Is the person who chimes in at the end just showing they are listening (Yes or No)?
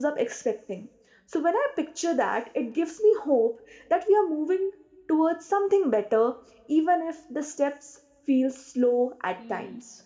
No